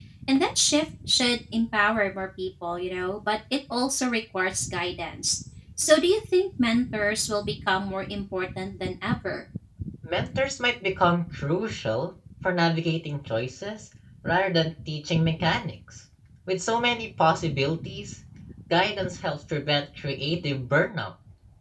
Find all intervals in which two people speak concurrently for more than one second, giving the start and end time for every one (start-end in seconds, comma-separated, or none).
none